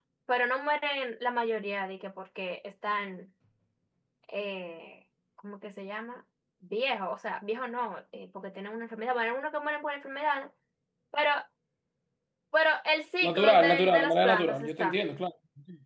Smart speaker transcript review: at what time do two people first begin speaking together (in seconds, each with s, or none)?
13.2 s